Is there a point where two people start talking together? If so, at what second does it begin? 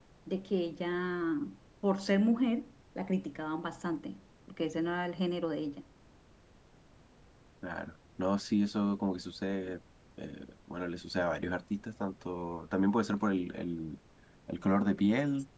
none

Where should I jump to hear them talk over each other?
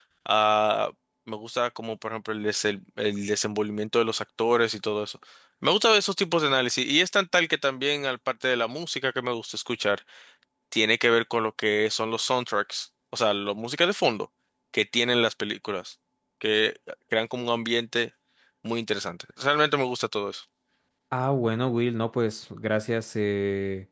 none

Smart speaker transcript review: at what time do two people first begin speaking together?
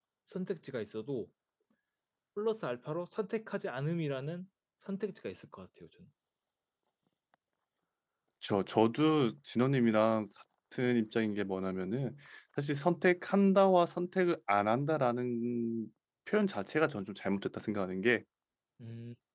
none

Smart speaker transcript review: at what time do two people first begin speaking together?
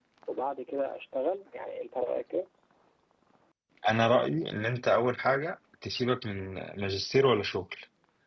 none

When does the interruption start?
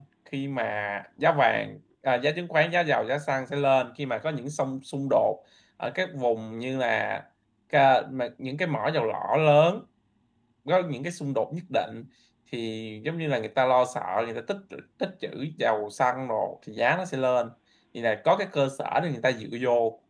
none

